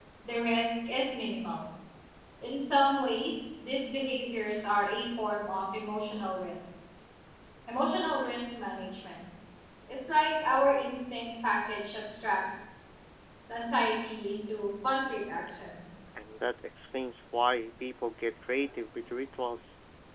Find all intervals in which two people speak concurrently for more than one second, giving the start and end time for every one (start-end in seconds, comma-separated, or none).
none